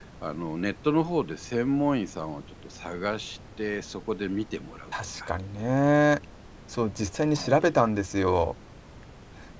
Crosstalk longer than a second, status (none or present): none